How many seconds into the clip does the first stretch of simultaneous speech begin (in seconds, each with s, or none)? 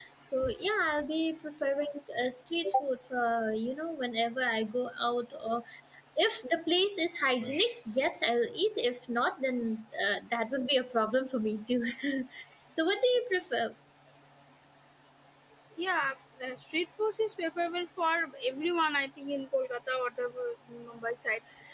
none